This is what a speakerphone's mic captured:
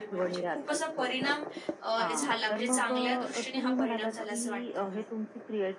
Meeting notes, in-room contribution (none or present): present